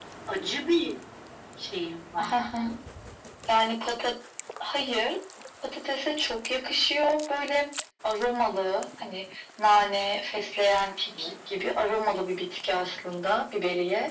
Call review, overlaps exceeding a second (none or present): none